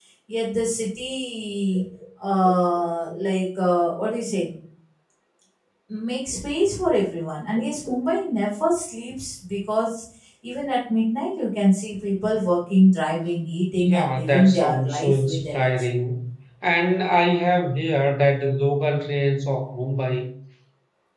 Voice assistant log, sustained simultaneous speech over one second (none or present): present